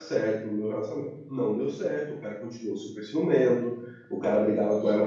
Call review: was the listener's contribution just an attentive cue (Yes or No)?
Yes